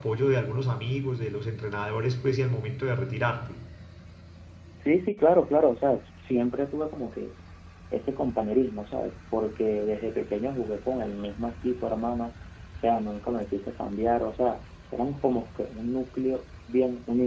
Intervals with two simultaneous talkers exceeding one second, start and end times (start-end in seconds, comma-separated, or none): none